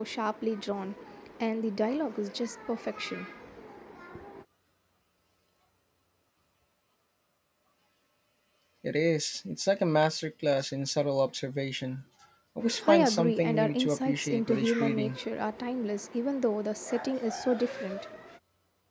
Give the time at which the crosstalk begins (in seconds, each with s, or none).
12.9 s